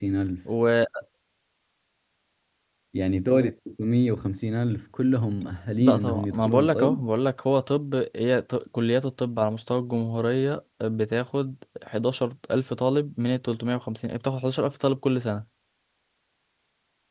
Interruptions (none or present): present